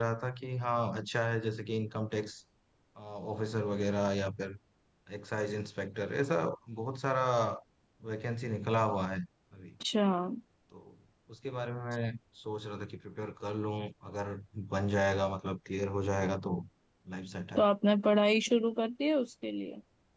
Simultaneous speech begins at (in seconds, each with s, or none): none